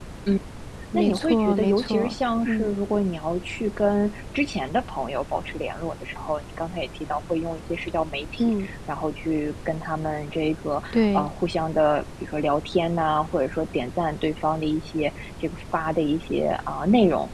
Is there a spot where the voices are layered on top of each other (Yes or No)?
Yes